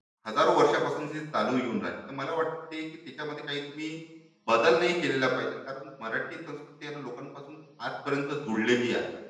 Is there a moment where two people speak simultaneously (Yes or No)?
No